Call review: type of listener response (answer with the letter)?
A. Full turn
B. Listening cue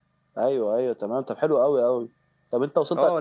A